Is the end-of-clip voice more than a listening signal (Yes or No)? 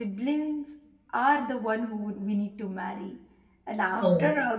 No